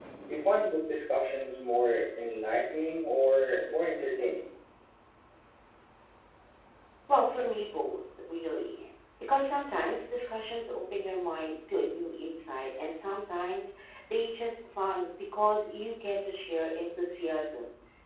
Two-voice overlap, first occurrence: none

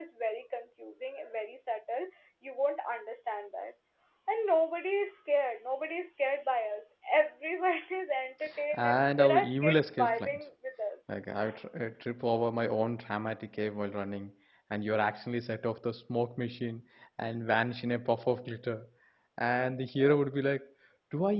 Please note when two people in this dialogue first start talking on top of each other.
8.7 s

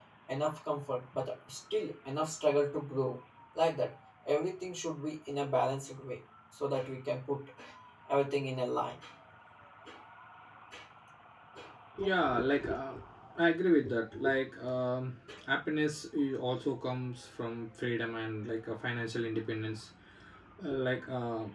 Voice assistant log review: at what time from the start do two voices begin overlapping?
none

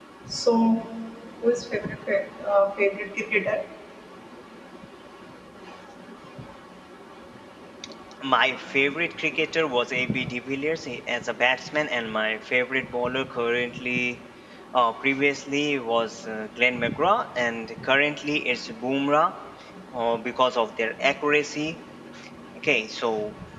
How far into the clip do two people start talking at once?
none

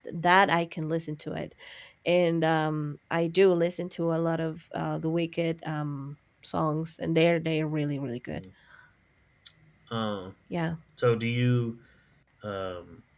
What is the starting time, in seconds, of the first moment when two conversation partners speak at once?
none

